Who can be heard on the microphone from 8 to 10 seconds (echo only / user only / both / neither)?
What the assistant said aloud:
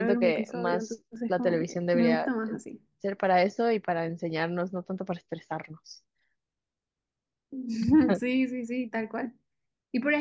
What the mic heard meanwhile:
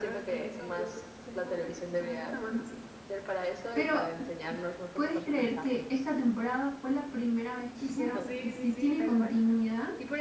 both